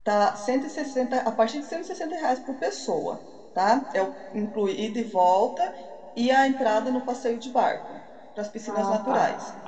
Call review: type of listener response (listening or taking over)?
taking over